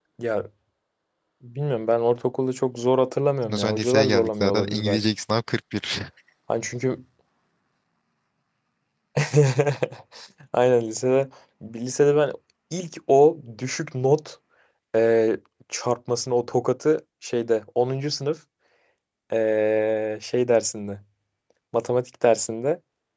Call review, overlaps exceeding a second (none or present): present